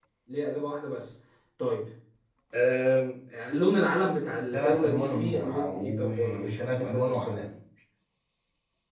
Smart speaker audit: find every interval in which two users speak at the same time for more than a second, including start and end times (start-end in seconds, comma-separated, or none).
4.5-7.5